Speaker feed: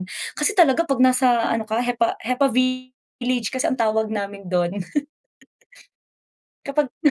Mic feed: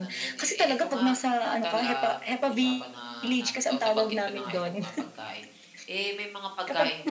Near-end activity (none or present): present